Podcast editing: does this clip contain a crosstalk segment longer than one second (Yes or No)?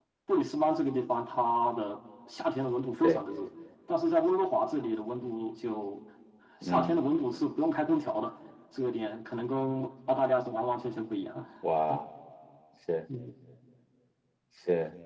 No